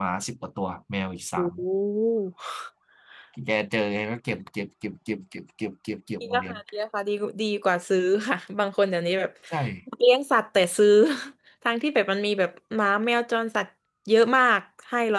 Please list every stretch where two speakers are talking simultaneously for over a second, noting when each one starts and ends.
none

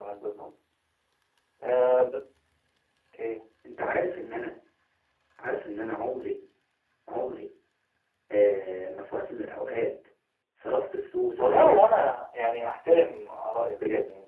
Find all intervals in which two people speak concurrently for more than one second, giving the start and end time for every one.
none

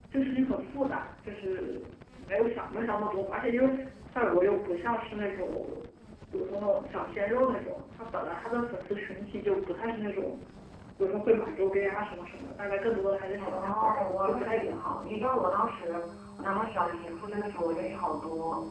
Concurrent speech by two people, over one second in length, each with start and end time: 13.4-14.9

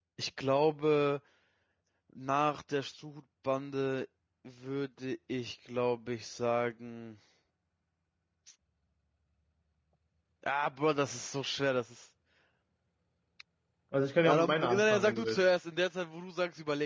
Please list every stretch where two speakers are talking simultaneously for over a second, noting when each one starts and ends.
14.2-15.5

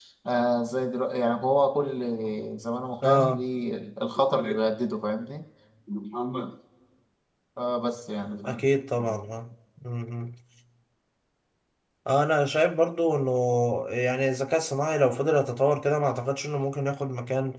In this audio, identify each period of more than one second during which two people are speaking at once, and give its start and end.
none

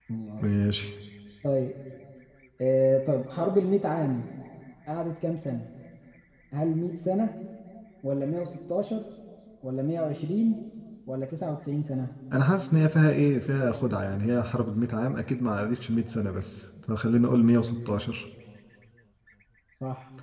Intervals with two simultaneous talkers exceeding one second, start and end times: none

